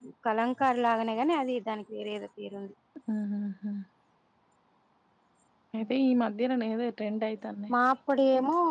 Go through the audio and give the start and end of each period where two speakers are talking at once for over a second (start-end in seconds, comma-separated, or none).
none